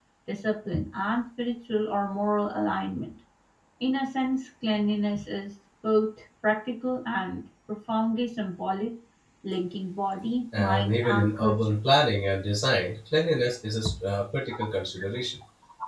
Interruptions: present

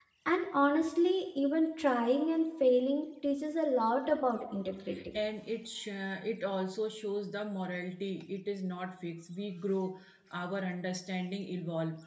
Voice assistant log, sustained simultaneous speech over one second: none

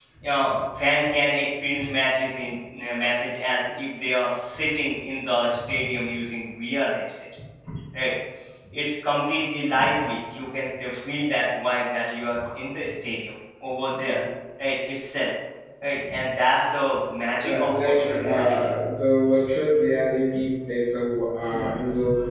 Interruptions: present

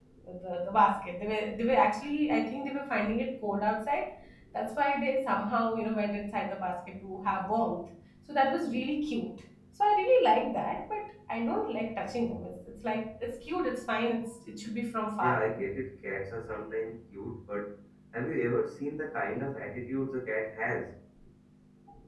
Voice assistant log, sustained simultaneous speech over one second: none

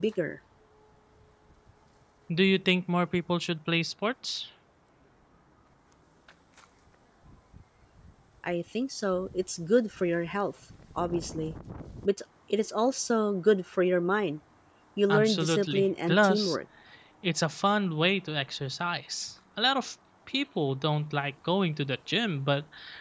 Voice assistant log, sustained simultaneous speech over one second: present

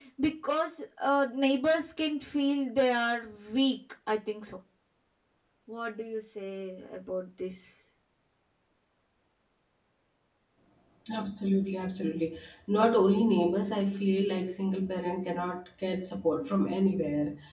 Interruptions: none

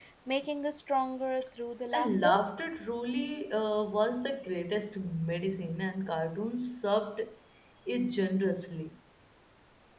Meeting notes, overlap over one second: none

